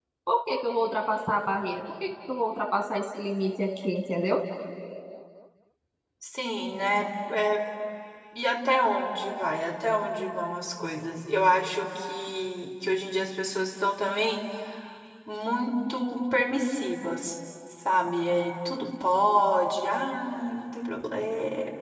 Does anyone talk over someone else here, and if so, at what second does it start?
none

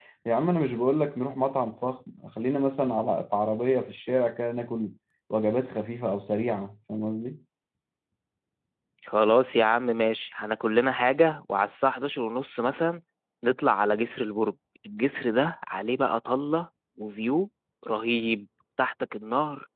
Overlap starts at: none

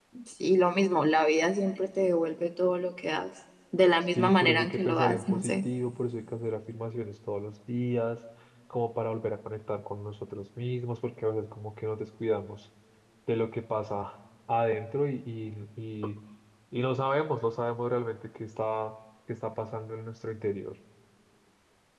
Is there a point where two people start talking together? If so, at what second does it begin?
4 s

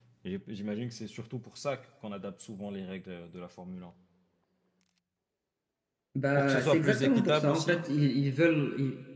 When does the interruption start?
6 s

